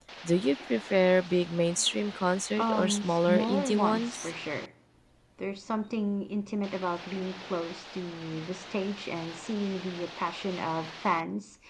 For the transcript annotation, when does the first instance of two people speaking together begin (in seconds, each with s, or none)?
2.6 s